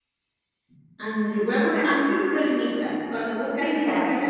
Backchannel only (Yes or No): Yes